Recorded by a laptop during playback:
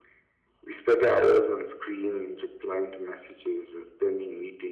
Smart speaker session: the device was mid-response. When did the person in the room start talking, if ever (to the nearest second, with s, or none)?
none